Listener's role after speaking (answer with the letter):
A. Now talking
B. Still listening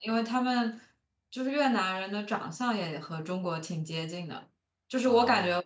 B